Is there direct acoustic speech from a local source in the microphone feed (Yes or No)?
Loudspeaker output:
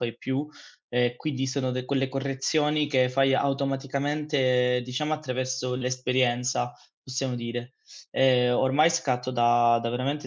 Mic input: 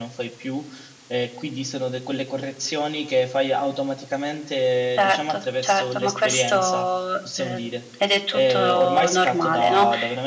Yes